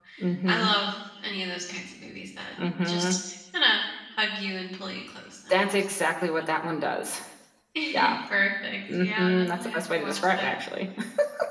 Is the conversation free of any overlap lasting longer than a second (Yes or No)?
No